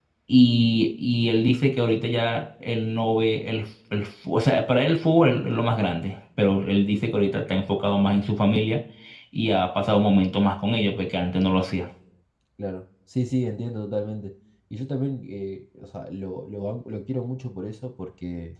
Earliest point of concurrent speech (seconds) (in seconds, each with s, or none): none